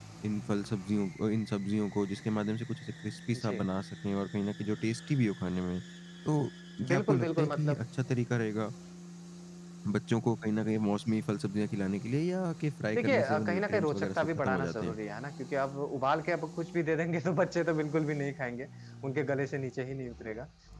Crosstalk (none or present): present